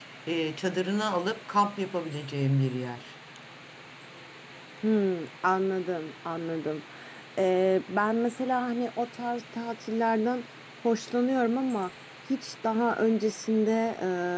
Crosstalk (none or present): none